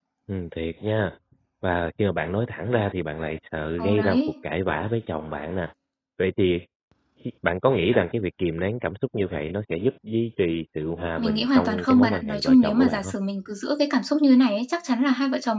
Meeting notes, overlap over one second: present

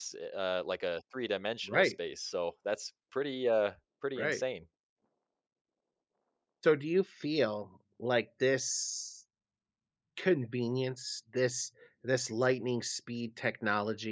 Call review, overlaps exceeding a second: none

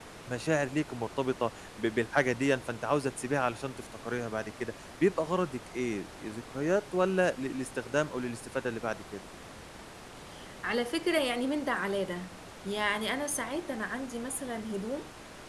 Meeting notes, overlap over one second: none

